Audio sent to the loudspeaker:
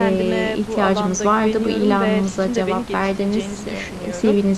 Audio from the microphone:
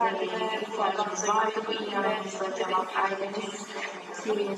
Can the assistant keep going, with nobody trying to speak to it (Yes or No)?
Yes